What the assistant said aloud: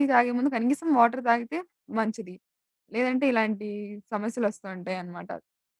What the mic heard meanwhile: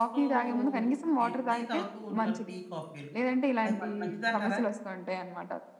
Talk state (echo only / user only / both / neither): both